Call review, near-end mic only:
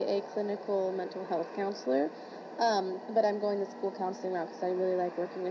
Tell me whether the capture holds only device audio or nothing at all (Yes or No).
Yes